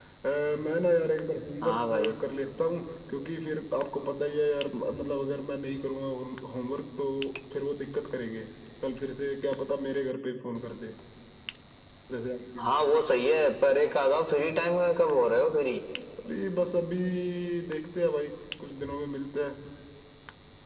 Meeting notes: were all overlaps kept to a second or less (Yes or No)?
Yes